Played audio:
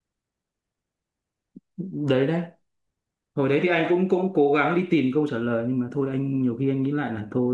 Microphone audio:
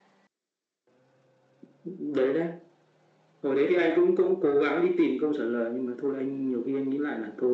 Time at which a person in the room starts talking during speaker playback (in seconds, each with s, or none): none